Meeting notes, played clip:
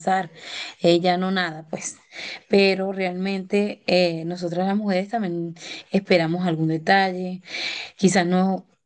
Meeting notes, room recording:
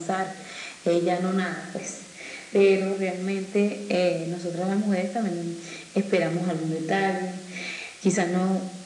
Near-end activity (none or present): none